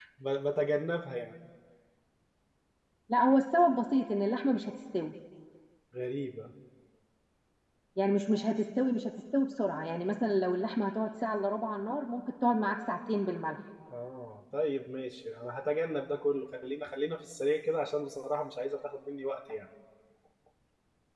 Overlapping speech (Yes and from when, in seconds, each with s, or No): No